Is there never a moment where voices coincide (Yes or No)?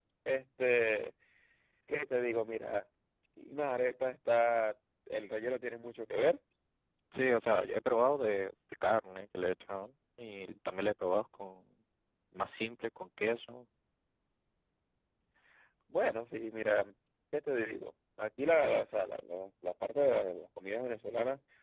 Yes